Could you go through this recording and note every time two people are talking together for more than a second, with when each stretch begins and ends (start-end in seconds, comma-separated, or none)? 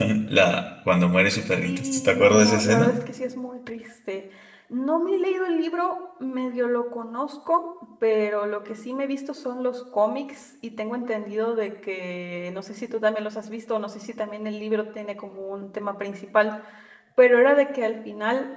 1.6-2.9